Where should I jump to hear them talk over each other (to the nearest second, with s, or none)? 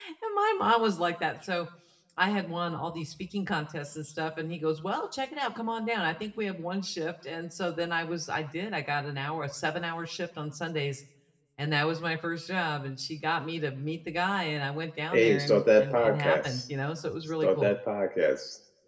15 s